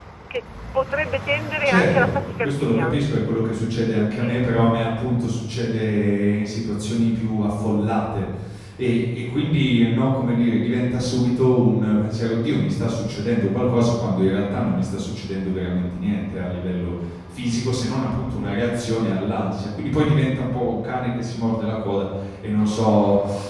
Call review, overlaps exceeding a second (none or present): present